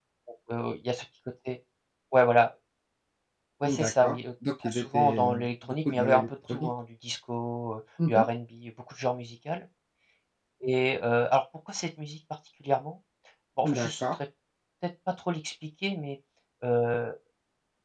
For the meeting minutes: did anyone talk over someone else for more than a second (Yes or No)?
Yes